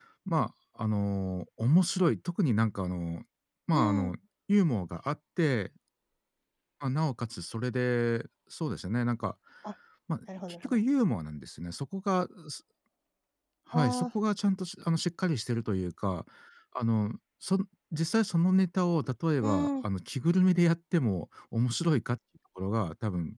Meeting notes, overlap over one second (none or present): none